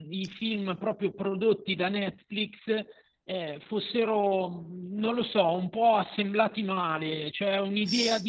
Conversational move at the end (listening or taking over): listening